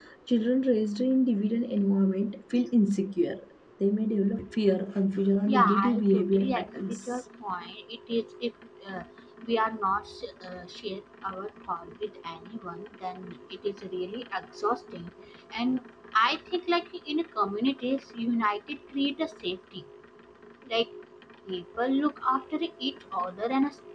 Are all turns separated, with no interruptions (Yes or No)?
No